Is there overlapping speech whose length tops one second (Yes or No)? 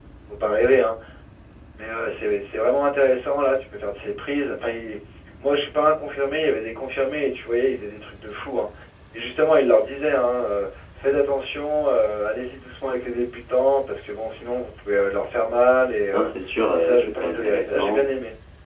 Yes